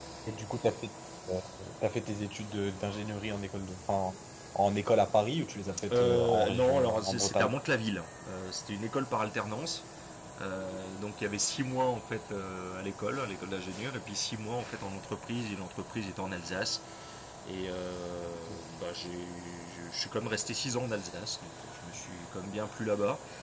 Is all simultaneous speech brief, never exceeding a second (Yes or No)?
No